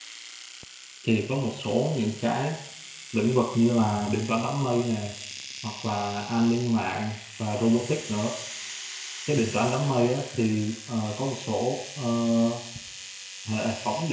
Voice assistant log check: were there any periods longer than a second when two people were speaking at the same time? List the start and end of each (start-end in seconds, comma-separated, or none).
none